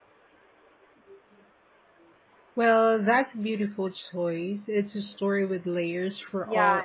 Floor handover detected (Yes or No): Yes